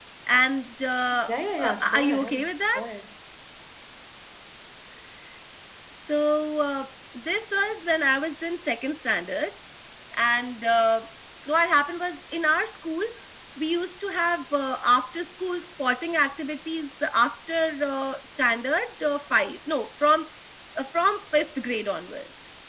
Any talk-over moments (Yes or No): Yes